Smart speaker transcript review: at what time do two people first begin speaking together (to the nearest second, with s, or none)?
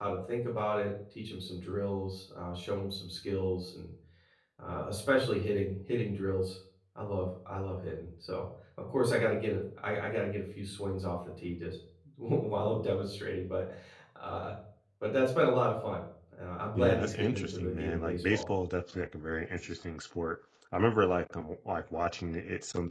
17 s